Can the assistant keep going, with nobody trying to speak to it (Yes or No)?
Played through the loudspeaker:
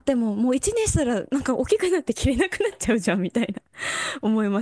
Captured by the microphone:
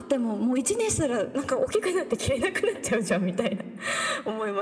Yes